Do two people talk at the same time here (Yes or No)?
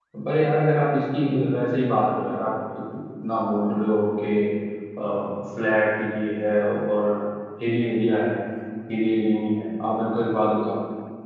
No